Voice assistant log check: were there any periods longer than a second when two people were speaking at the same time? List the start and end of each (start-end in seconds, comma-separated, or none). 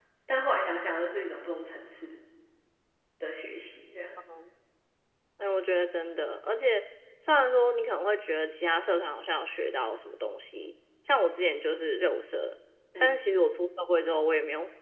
none